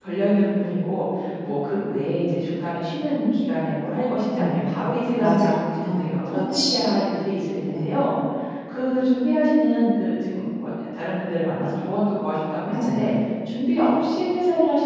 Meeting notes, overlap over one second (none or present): present